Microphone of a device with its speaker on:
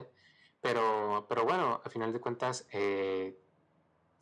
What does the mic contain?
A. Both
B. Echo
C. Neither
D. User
B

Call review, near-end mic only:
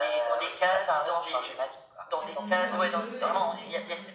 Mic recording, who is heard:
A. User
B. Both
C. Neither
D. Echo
B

